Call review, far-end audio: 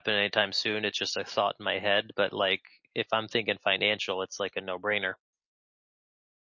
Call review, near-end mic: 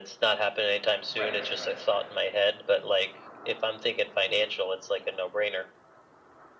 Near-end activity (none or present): present